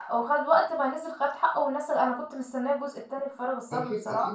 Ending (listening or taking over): taking over